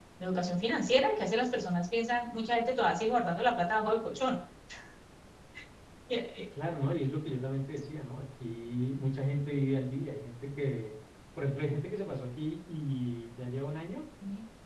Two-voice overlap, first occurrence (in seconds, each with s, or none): none